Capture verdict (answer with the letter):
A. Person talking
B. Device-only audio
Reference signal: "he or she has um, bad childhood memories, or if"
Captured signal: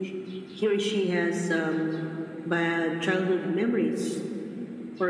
B